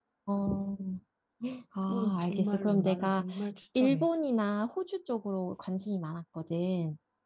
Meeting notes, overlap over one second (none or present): present